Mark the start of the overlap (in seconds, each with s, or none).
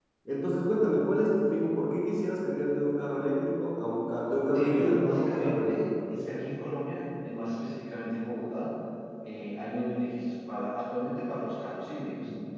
4.5 s